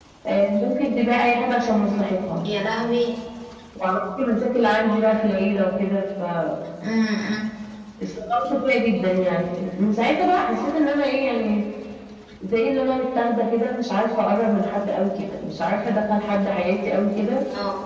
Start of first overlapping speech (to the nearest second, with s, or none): none